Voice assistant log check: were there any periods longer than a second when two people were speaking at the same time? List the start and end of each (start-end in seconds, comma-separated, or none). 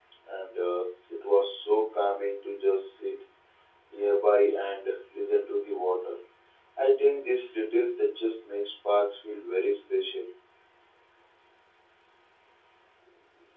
none